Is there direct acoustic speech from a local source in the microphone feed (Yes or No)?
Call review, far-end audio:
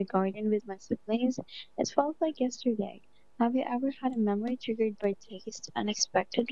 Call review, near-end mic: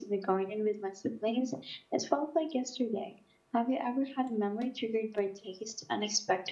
No